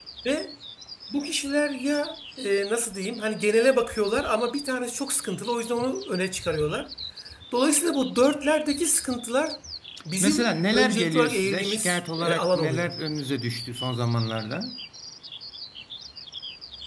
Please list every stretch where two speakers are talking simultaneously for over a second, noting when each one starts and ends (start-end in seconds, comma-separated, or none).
10.2-12.9